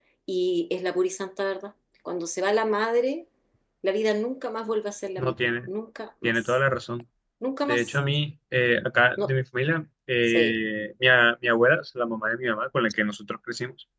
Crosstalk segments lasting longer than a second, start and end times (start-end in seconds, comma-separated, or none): none